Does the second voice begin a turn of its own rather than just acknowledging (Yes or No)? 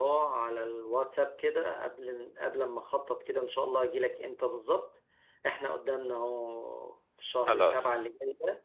No